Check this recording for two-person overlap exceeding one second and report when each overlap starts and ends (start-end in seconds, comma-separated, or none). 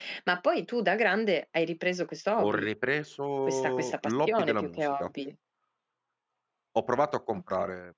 3.5-5.1